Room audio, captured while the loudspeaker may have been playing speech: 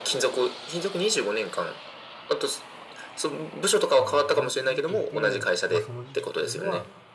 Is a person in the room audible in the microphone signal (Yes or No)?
Yes